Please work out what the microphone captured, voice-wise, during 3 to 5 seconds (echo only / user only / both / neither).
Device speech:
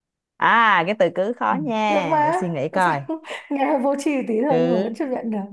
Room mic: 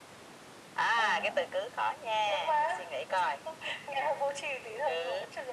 echo only